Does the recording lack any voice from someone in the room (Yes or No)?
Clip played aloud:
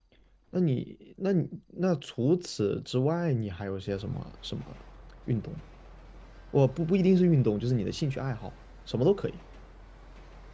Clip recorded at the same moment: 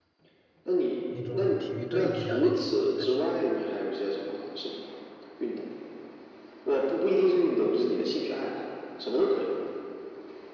No